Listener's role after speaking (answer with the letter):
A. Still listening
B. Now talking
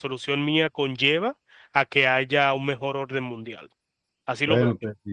B